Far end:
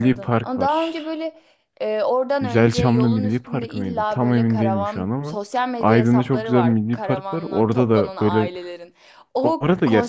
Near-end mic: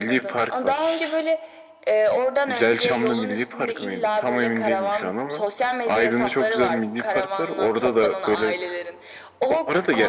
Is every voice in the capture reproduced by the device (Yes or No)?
Yes